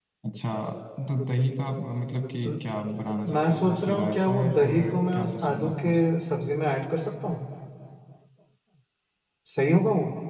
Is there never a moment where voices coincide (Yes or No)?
No